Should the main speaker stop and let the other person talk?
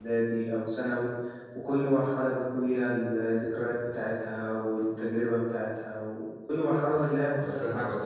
Yes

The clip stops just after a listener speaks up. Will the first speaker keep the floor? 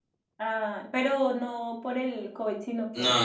No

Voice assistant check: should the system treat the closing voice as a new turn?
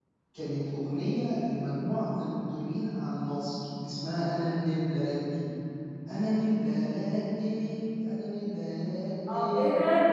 Yes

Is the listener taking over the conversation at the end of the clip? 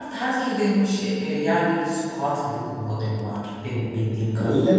Yes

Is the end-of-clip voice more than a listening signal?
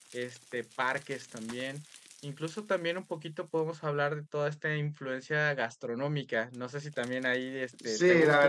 Yes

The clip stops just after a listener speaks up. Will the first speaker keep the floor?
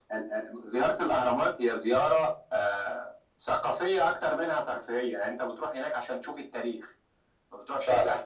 Yes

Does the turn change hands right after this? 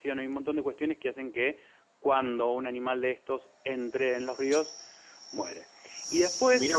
No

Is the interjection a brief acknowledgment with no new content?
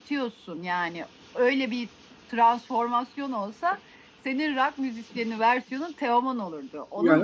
No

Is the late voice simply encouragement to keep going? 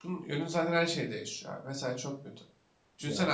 Yes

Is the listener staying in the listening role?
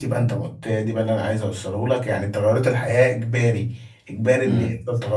Yes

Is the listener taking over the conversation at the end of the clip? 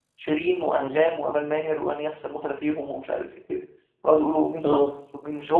No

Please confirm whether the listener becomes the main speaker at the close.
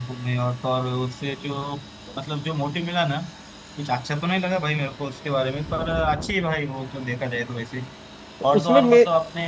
No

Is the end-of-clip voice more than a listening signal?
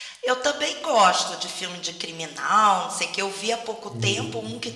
No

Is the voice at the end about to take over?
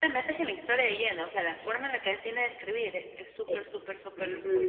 Yes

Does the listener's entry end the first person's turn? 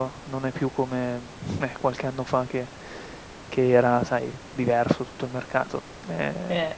No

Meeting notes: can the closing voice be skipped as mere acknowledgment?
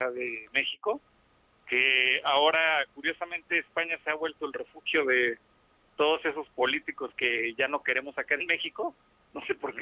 Yes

